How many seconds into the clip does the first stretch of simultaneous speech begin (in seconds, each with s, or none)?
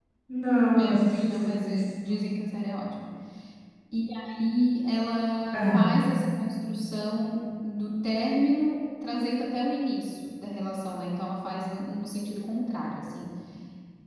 0.8 s